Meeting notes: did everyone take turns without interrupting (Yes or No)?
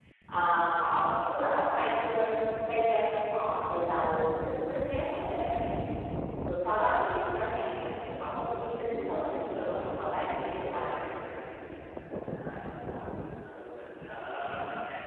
No